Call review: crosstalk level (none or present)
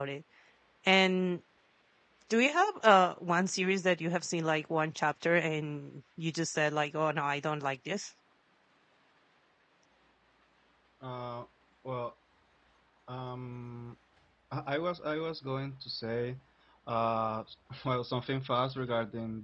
none